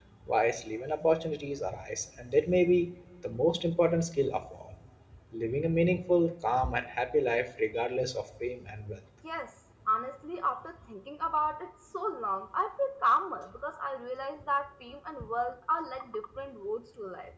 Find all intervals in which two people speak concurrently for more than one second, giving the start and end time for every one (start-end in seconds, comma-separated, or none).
none